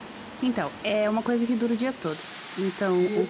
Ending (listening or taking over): listening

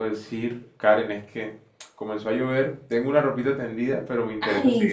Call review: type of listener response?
listening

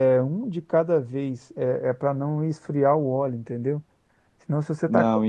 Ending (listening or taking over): listening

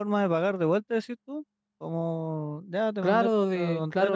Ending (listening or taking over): taking over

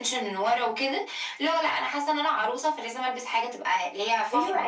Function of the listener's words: taking over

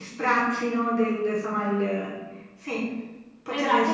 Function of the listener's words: taking over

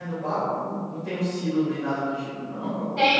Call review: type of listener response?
taking over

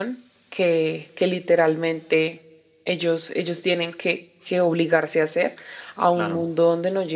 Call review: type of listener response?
listening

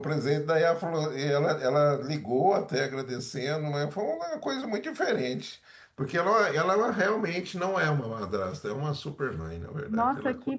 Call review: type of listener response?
taking over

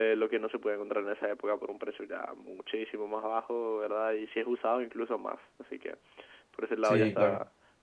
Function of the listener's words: listening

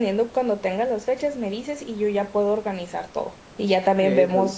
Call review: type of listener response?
listening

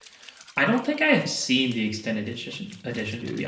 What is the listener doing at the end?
listening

